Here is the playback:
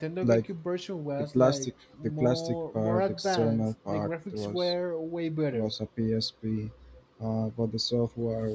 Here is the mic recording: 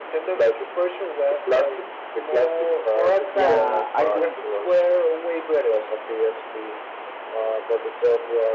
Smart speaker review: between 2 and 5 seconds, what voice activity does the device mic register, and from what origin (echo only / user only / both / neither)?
both